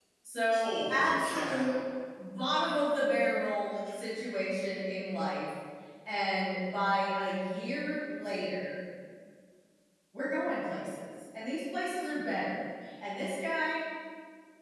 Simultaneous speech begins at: 1 s

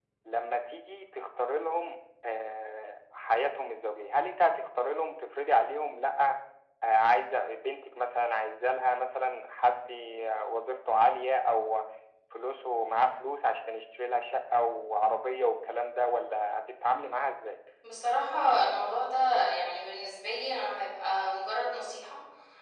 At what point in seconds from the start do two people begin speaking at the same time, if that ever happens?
none

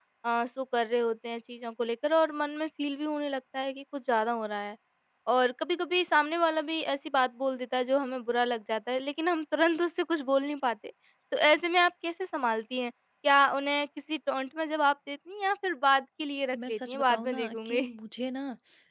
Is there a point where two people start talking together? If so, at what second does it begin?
17 s

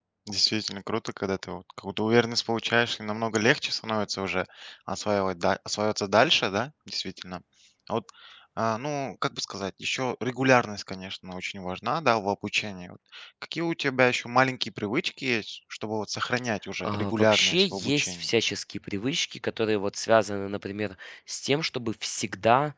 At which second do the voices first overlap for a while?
17 s

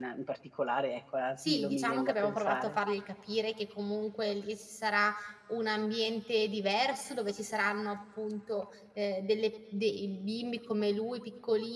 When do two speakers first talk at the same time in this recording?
1 s

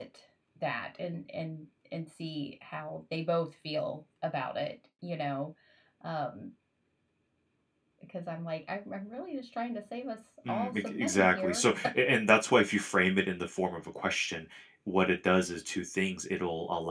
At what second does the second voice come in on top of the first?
10 s

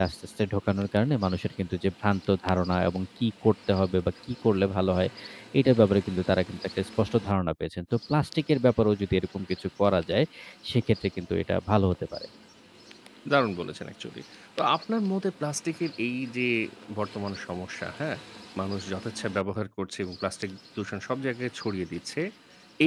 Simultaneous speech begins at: none

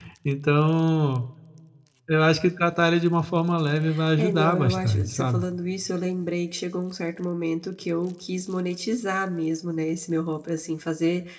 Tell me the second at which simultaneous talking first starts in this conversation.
4 s

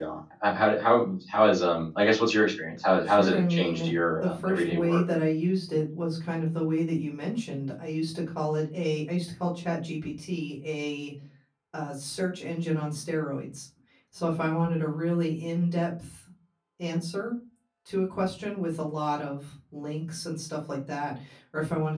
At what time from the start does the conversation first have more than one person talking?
3 s

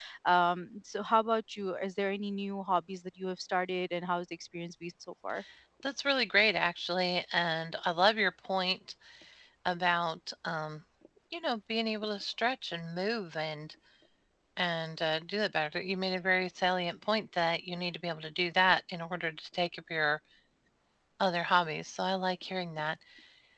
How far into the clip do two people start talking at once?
none

